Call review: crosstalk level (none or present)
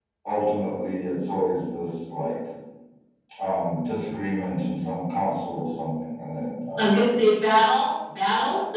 none